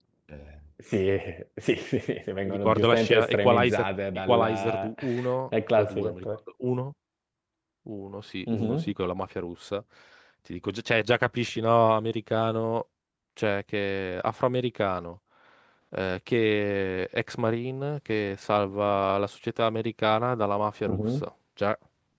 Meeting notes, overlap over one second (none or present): present